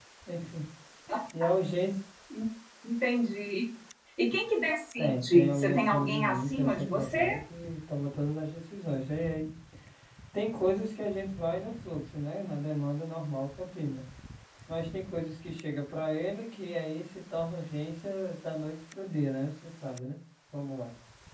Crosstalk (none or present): present